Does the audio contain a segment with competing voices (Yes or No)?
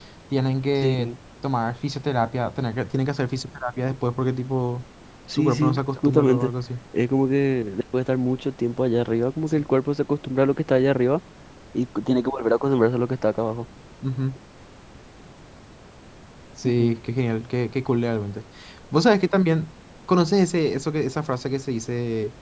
Yes